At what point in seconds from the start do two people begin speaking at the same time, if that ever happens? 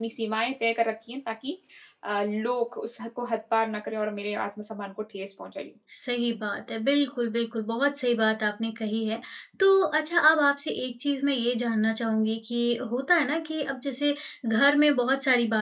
none

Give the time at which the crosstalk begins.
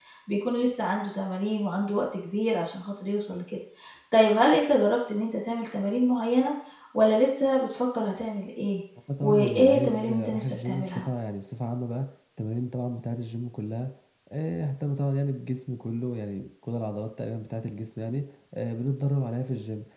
9.2 s

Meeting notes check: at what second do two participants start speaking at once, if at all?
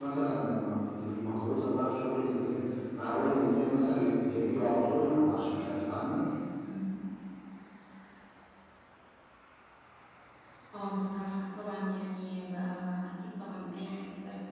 none

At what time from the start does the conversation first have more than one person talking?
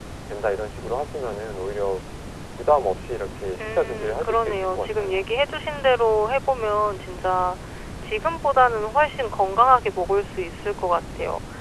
3.6 s

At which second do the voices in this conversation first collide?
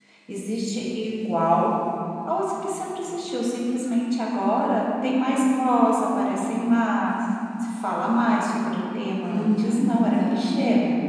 9.3 s

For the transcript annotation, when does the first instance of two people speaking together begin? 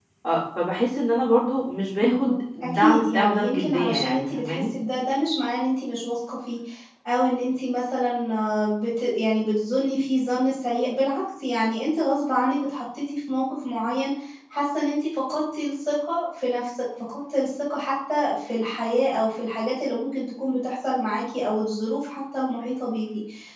2.0 s

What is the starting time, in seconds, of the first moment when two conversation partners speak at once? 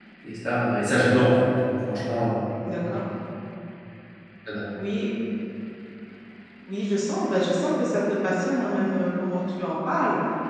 none

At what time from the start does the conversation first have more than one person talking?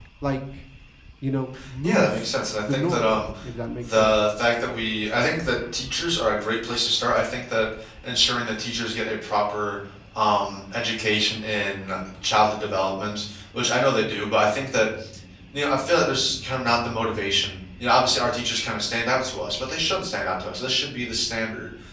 1.8 s

